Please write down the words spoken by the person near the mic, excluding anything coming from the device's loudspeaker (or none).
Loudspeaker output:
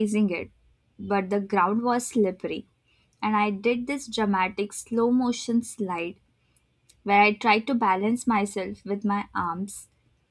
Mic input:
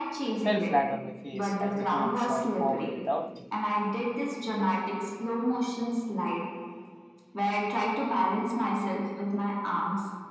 fell flat on my face as the board shot forward without me.